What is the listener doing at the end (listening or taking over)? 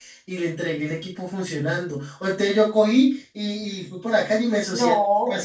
listening